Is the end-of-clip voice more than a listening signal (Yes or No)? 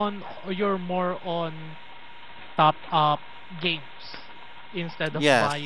No